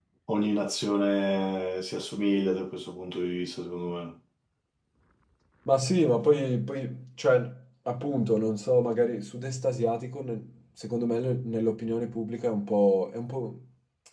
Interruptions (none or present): none